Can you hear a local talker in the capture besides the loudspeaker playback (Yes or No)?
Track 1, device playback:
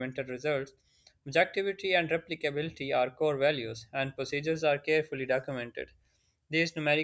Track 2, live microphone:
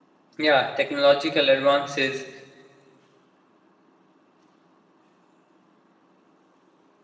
Yes